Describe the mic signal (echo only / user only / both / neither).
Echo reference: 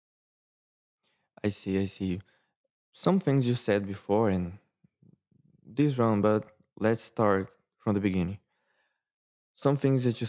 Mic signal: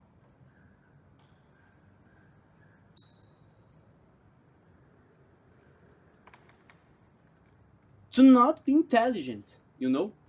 user only